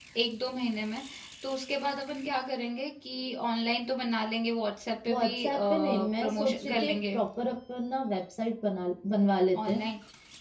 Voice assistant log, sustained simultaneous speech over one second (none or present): present